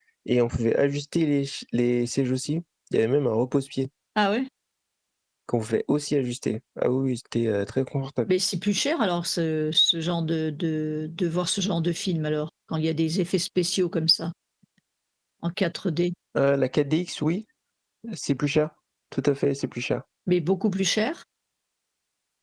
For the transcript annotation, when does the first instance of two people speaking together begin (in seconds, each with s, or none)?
none